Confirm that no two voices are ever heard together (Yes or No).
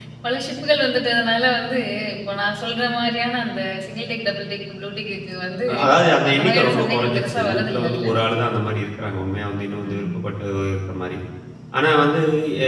No